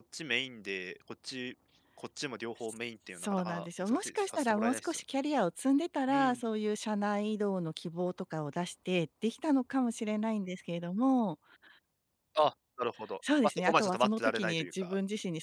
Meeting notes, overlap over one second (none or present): present